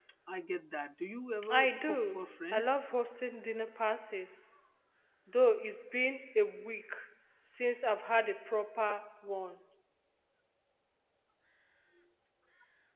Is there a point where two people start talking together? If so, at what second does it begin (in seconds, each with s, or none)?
1.4 s